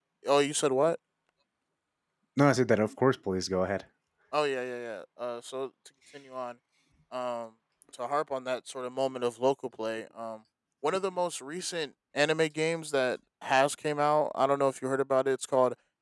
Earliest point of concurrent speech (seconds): none

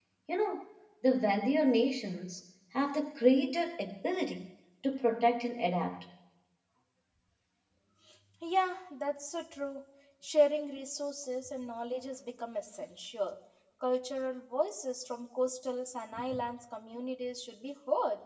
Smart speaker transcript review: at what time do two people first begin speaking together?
none

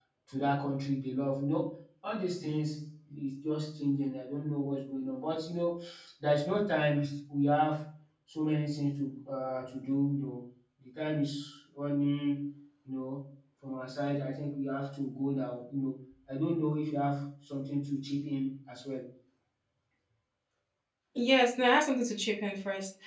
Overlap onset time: none

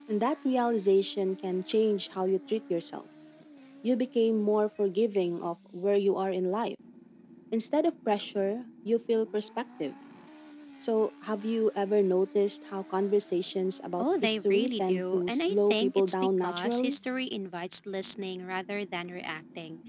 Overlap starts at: 14 s

